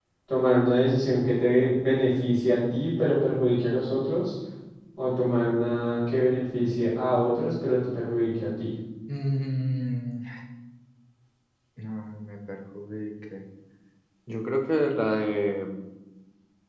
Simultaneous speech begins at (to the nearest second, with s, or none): none